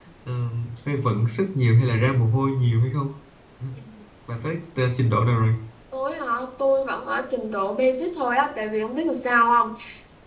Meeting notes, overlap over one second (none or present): none